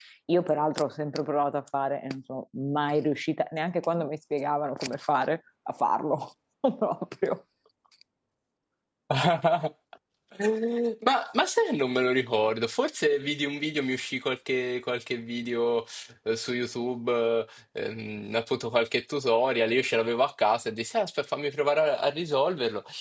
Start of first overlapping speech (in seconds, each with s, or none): none